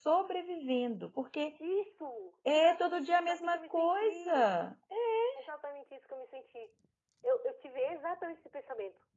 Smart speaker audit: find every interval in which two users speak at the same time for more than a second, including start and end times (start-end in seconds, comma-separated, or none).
2.5-4.5